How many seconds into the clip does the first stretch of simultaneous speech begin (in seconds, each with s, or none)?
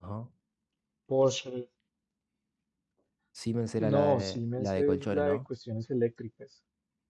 3.8 s